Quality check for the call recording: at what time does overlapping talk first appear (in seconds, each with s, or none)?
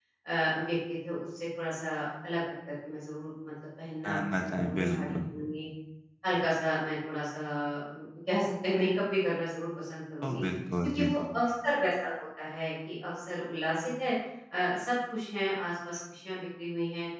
4.0 s